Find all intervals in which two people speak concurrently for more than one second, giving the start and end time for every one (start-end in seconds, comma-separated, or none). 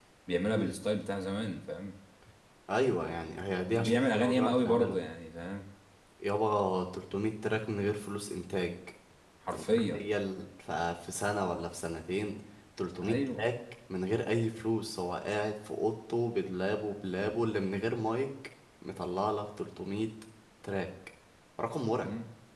3.7-5.0